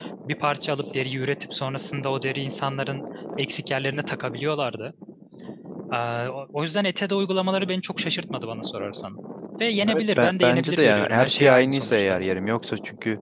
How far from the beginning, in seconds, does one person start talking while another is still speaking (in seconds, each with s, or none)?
9.9 s